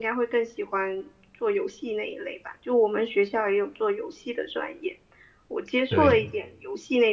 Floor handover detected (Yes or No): No